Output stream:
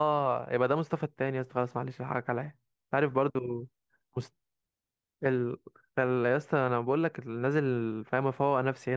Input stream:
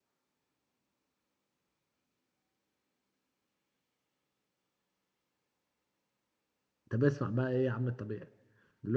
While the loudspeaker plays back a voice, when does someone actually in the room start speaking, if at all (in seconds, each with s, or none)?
6.9 s